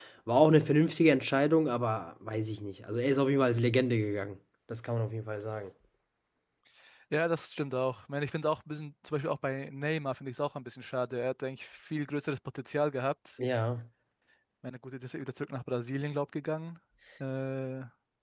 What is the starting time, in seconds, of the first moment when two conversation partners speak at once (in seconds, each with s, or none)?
none